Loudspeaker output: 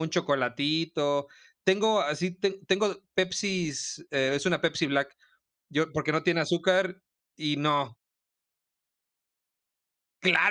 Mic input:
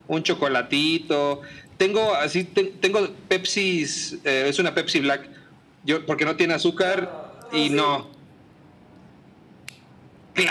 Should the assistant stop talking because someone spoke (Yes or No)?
Yes